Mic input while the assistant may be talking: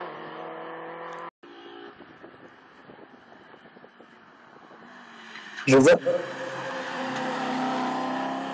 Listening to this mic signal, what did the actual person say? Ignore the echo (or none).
je vois.